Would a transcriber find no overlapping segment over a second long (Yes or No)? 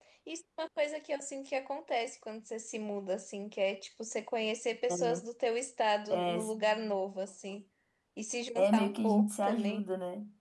No